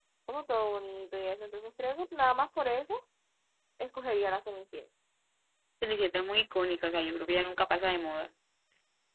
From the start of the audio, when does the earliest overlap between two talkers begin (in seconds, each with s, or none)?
none